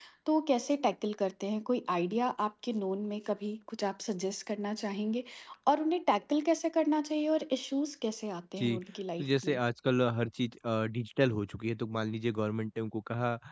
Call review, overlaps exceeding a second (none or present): none